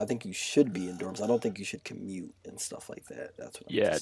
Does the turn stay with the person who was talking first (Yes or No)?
No